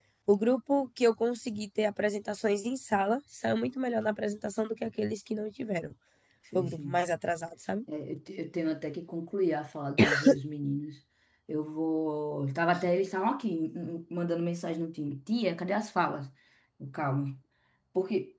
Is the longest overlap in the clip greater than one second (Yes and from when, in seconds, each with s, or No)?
No